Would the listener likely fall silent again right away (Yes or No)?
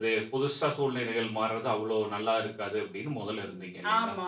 No